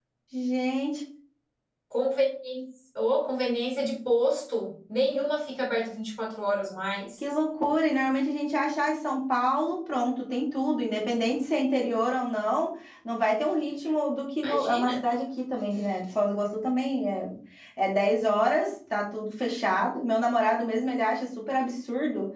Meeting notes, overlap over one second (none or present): none